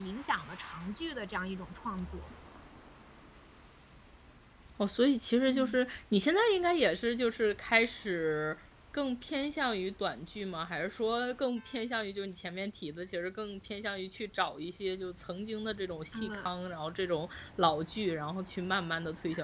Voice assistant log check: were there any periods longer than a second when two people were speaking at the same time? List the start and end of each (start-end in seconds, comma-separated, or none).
none